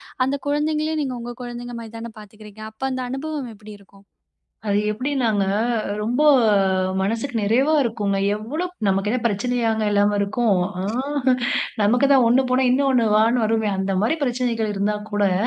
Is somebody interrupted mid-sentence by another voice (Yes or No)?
No